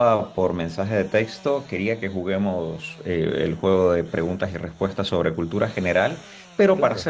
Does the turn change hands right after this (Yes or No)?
No